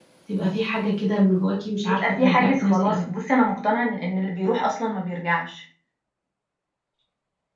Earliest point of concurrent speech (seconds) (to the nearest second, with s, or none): 2 s